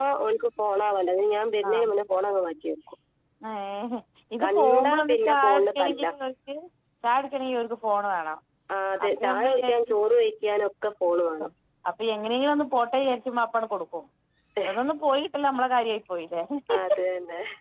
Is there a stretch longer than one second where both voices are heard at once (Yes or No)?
Yes